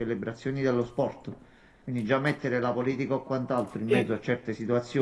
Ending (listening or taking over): listening